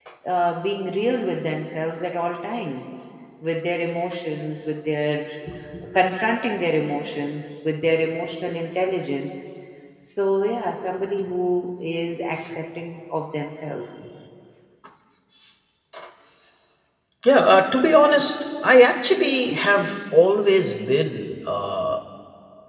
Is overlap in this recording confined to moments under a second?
Yes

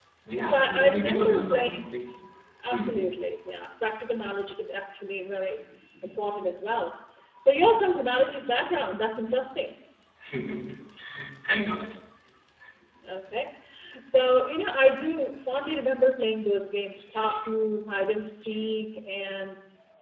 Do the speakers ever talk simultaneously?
Yes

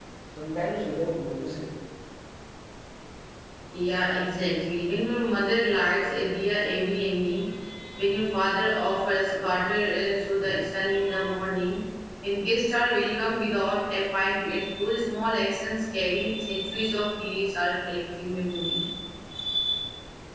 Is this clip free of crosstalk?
Yes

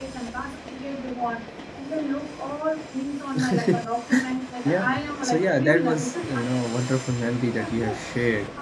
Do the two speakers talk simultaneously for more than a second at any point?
Yes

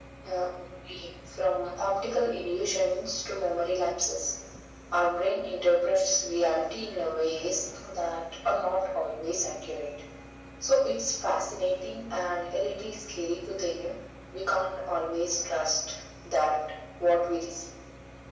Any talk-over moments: No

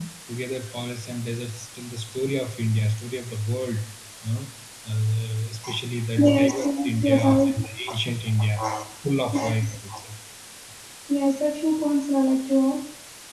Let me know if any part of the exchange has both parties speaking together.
Yes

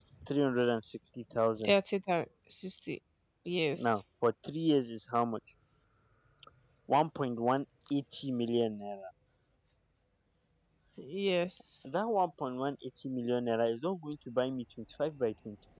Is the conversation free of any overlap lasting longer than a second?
Yes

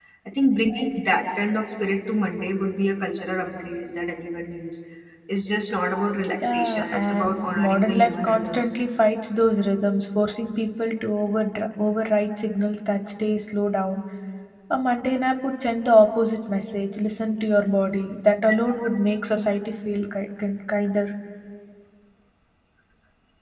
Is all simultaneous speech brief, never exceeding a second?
No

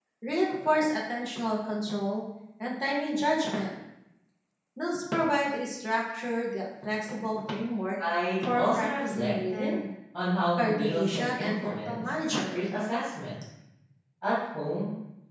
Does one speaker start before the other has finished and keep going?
Yes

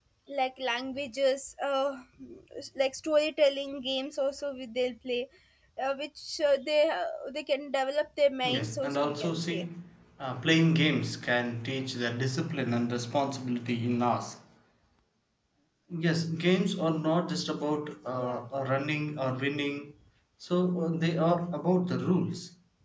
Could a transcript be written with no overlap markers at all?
No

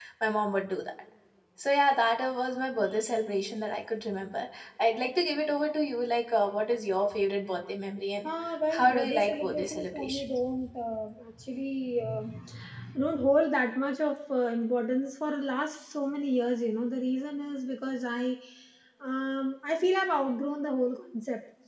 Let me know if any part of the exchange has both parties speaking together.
Yes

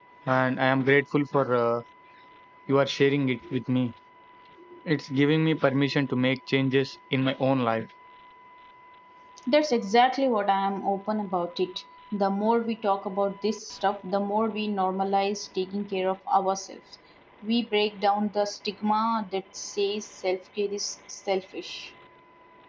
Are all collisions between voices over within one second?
Yes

